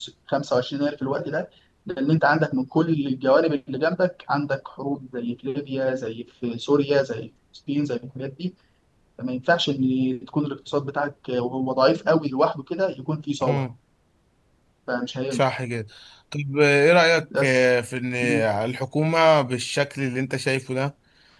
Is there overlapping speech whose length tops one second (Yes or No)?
No